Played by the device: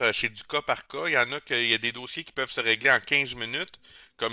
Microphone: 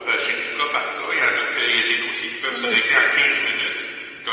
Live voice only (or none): Ah oui.